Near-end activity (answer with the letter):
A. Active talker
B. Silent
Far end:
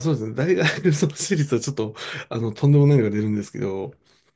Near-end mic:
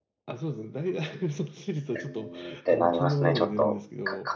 A